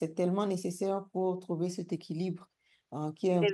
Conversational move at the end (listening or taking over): listening